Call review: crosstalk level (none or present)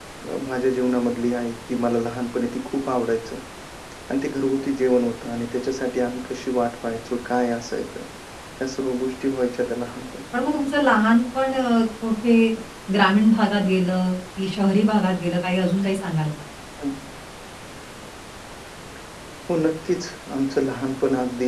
none